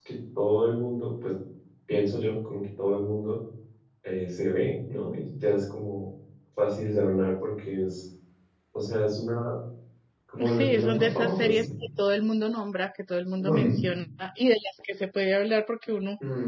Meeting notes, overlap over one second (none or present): present